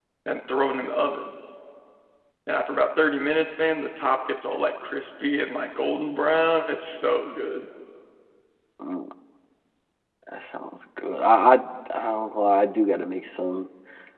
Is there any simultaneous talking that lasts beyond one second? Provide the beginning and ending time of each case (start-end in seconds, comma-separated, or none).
none